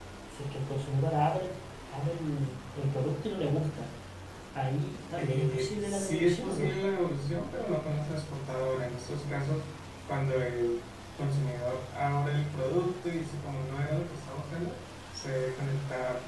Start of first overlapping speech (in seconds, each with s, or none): 5.2 s